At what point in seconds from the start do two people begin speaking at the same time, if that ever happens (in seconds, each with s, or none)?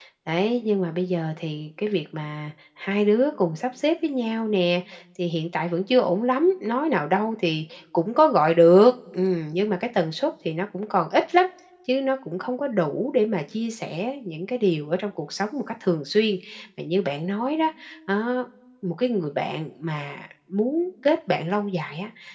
none